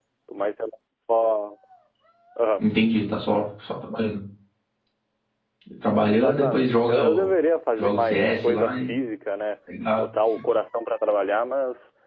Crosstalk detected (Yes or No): Yes